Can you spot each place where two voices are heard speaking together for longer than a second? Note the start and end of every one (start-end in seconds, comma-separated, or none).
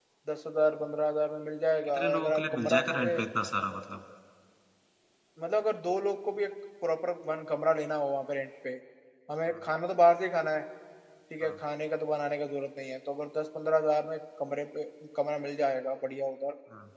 1.9-3.2